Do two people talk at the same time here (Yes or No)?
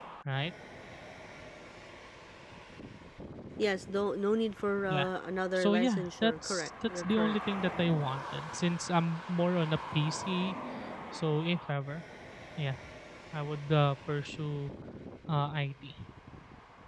Yes